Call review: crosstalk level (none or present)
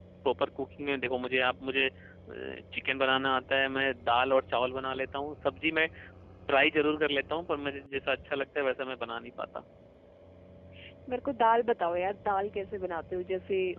none